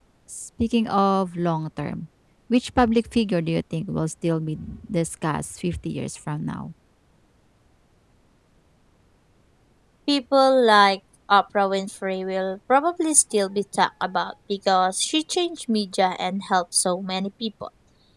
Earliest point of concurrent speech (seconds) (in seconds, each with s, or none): none